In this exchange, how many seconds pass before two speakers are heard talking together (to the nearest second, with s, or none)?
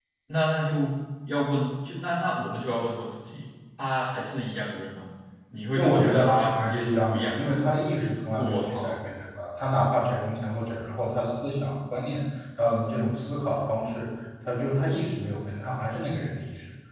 6 s